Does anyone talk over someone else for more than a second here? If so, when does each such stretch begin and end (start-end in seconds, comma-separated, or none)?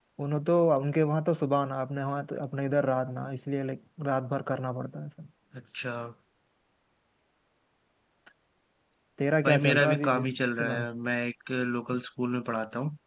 9.4-10.8